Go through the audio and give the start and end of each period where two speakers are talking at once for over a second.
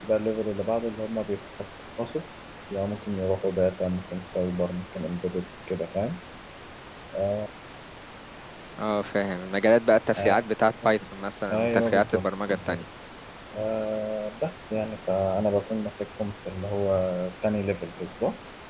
11.5-12.8

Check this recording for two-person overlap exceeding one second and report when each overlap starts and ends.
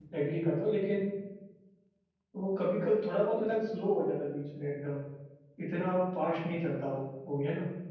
none

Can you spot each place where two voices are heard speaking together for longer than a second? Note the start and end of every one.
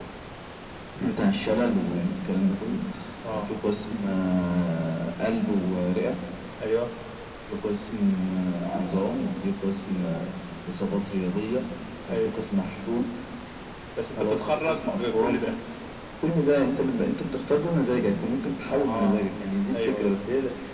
14.2-15.5

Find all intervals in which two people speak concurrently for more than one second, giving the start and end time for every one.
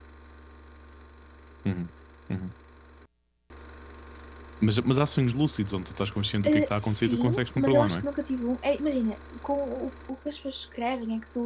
6.4-8.0

